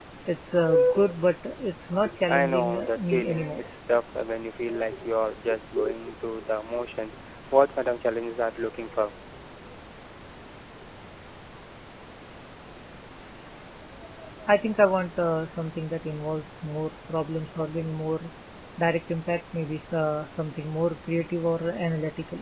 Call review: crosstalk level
present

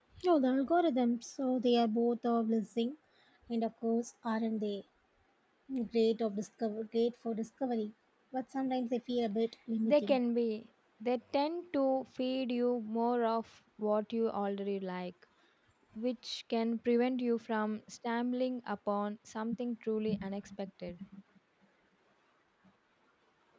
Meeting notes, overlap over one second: none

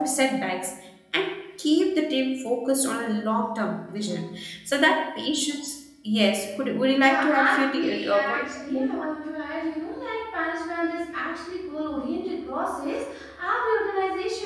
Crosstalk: present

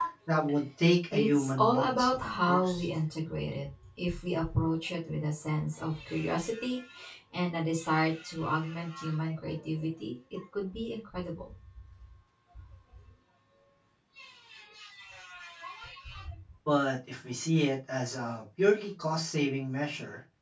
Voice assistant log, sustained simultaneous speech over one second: present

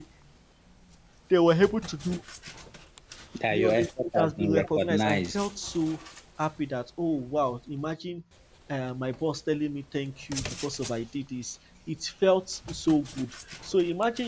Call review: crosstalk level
present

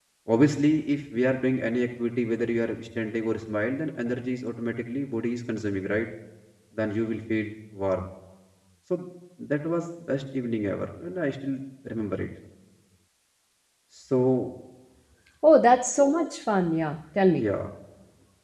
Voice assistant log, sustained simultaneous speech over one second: none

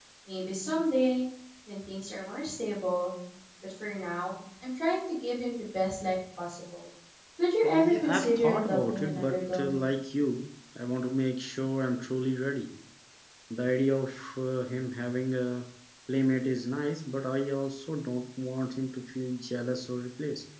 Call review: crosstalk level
present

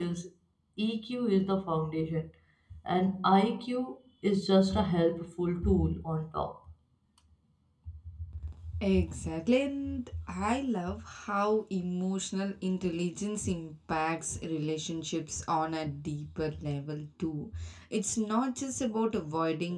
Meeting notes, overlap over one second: none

